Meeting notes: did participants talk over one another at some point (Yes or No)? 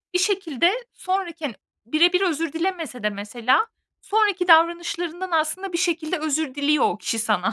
No